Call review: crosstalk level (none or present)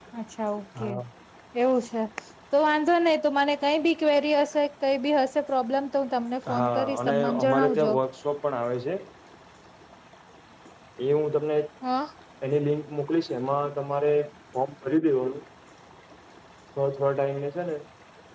present